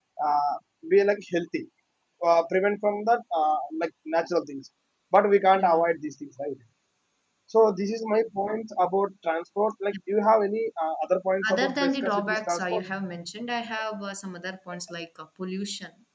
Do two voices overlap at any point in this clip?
Yes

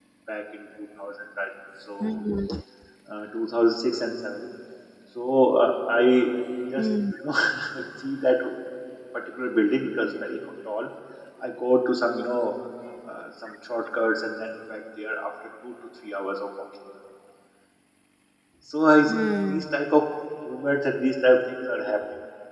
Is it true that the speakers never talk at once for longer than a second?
Yes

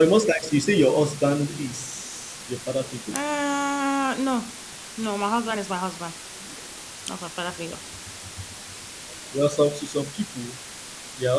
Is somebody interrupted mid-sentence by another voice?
No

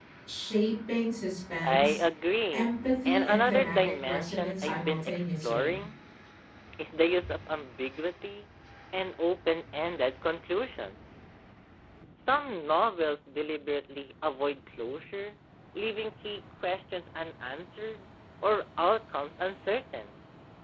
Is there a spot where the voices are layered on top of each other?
Yes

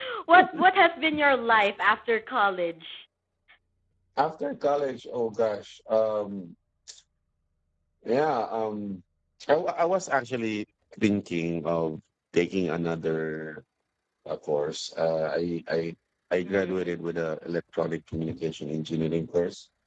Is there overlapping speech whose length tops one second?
No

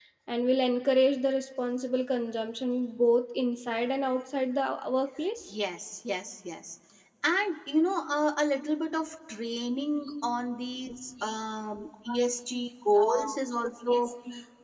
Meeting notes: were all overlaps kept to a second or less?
Yes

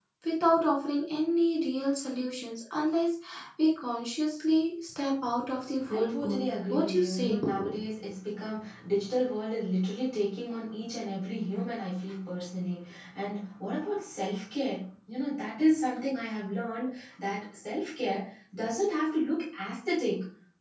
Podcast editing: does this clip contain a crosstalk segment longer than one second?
Yes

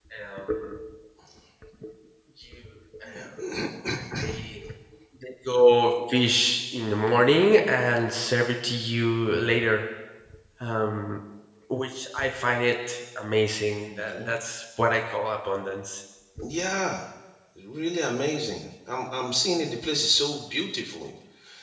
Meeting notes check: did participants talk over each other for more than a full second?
No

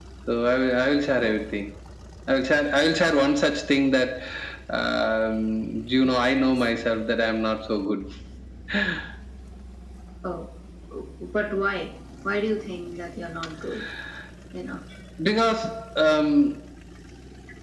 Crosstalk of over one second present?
No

